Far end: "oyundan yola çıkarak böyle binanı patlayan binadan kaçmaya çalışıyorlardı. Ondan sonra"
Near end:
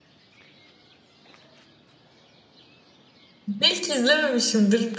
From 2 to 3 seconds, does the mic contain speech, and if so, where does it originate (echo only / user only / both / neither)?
neither